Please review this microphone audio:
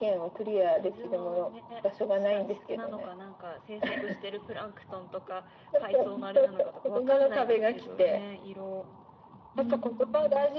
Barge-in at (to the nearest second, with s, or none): 10 s